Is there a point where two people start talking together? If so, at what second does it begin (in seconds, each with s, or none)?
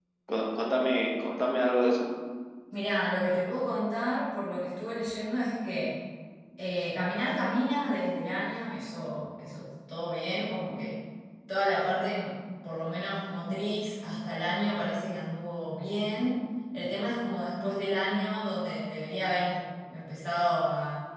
none